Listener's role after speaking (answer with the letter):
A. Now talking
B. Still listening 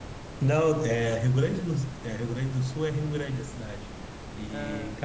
B